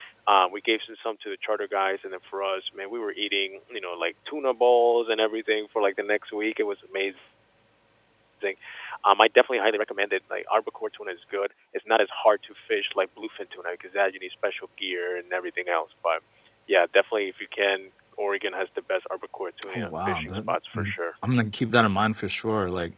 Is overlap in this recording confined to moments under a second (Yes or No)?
No